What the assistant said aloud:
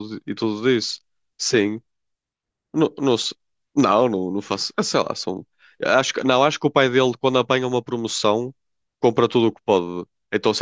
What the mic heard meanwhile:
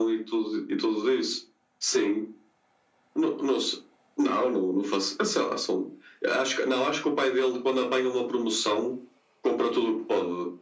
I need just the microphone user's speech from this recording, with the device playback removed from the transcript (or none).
none